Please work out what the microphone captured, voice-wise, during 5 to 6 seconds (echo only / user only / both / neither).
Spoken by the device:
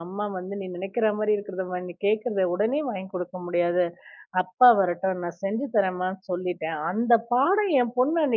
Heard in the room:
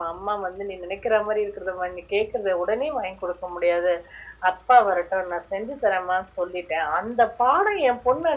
echo only